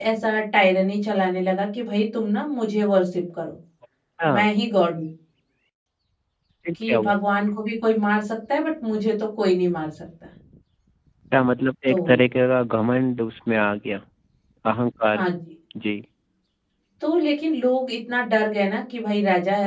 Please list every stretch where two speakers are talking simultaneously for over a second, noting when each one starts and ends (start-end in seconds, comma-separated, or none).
none